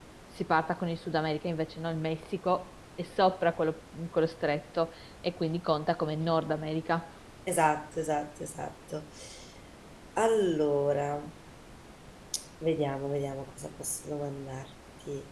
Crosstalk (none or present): none